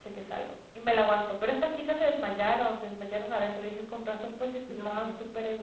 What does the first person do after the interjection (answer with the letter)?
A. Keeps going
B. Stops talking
B